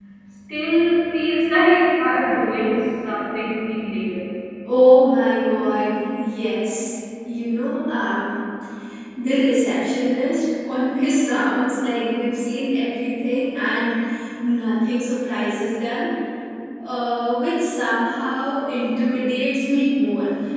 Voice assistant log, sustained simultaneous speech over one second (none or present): none